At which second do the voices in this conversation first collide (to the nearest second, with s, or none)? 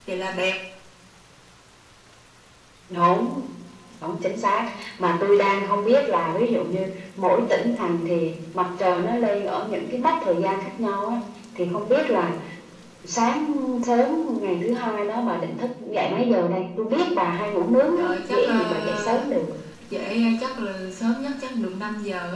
18 s